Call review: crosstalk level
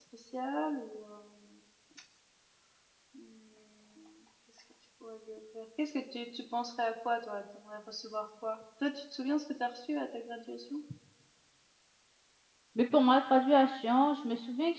none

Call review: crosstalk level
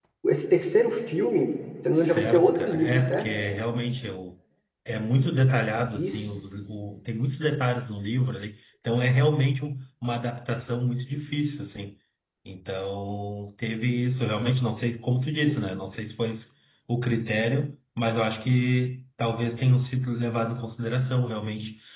present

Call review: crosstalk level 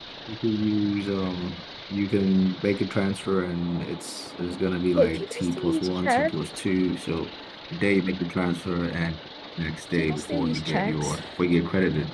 present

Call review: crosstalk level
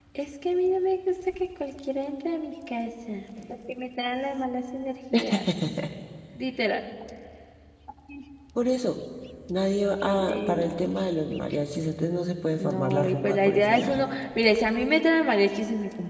present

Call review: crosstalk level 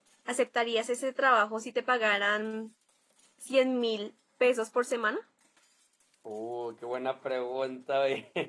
none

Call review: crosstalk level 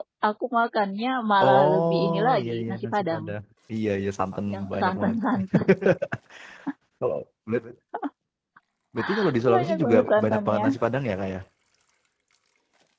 present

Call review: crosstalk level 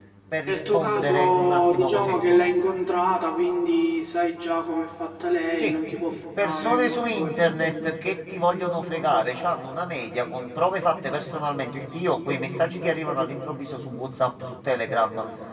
present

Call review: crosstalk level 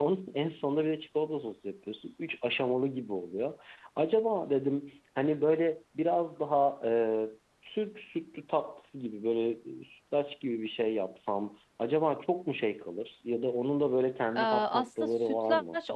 present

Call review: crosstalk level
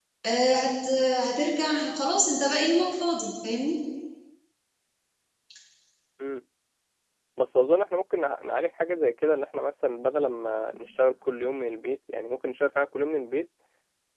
none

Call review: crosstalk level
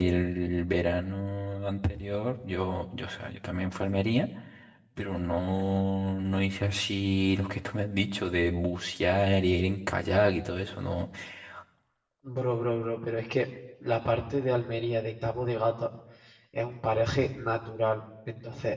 none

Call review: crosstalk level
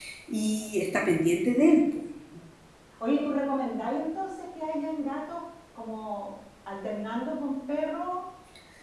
none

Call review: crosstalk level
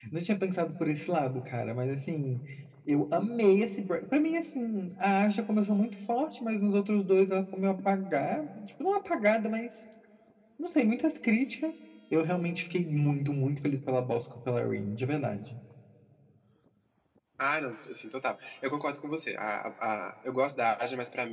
none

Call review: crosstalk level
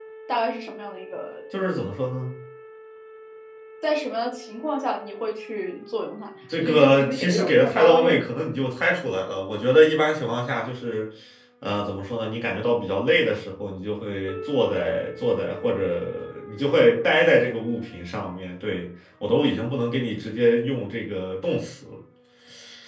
present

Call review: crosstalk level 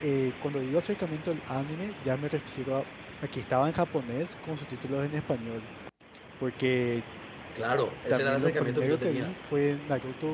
present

